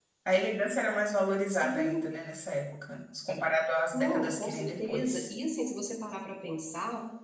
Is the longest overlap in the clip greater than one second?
Yes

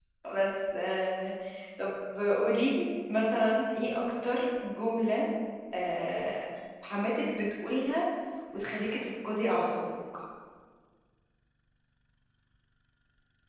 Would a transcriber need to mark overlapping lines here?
No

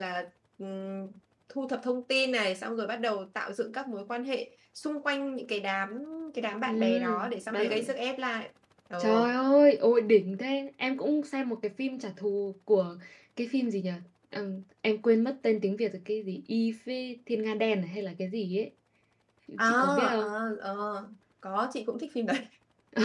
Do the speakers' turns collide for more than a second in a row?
Yes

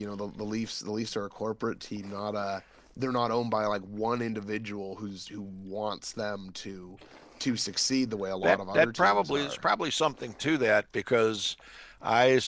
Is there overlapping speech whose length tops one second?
Yes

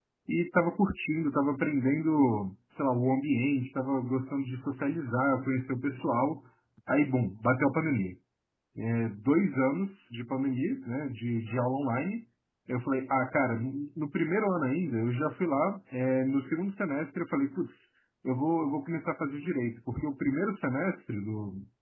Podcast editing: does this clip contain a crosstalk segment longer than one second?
No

